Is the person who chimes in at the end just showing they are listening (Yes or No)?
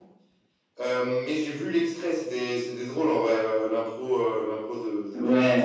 No